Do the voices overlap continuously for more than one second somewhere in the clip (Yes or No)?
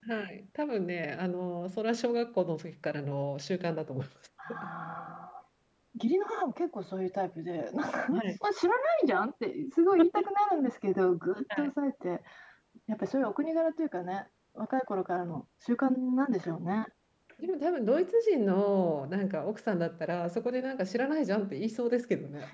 No